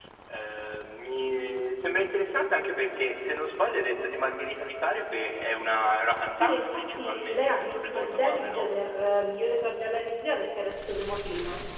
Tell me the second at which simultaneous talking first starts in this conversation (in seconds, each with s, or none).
6.4 s